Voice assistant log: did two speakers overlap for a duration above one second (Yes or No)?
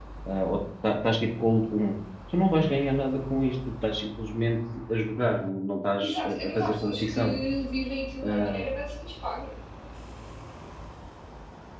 Yes